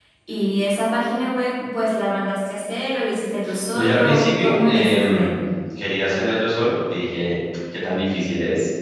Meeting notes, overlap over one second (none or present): present